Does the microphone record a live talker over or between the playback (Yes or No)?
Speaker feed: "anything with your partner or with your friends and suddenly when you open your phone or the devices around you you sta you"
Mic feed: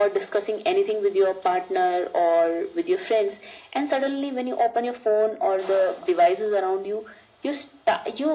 No